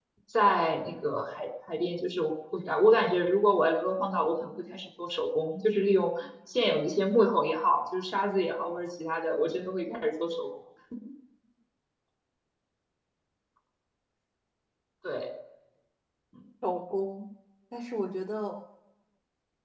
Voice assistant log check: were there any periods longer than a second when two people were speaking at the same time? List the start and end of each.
none

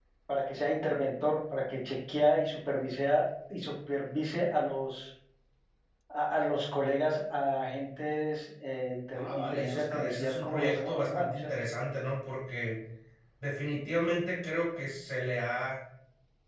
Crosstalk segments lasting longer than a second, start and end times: 9.1-11.5

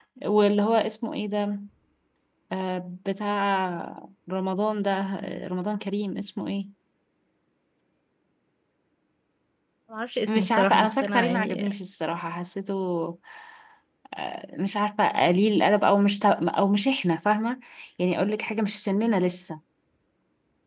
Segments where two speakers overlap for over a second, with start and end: 10.3-11.7

